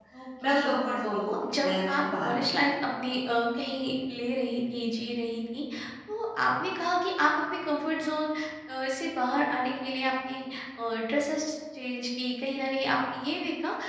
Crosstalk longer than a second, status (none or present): present